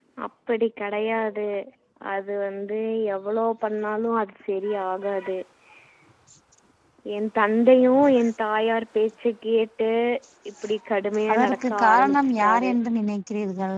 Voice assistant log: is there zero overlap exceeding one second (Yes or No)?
No